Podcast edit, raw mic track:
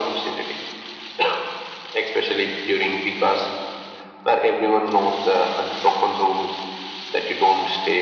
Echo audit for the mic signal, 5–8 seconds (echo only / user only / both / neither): echo only